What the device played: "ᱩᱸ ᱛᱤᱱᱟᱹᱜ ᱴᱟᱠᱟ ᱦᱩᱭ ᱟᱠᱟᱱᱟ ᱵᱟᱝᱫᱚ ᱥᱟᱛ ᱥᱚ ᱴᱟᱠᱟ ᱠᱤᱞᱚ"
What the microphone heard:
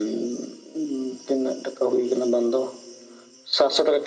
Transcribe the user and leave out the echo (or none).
none